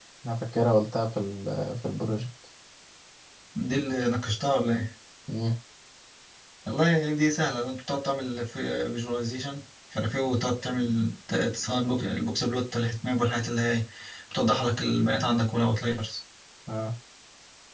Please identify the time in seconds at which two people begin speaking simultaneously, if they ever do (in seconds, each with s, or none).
none